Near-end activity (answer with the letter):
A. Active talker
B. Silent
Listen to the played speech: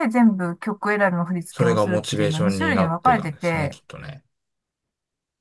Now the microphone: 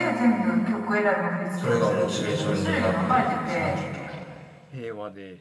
A